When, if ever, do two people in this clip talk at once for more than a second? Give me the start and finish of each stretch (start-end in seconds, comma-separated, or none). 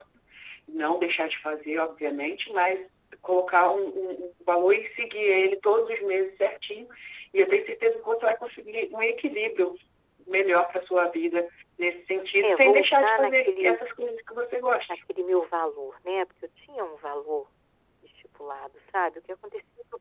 12.4-13.8